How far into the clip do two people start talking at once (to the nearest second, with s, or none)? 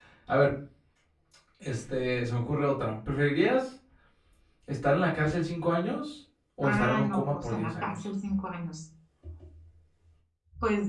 7 s